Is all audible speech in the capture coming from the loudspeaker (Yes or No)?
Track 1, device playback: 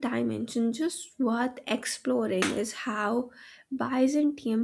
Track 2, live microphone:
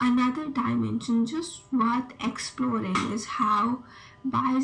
Yes